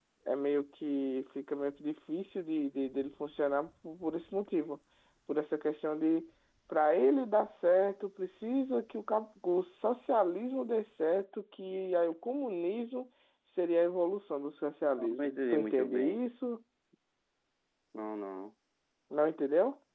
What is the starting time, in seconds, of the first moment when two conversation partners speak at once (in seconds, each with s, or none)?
15.0 s